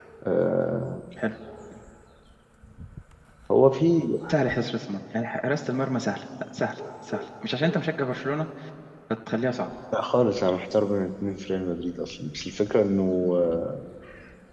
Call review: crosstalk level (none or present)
none